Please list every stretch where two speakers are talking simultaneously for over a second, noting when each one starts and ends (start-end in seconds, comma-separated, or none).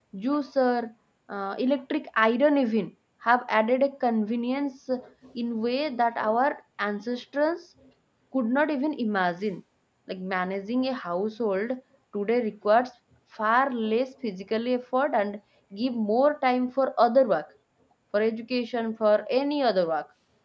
none